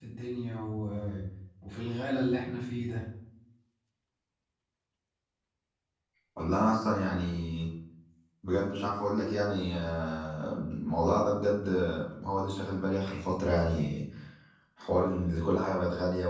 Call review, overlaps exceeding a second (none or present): none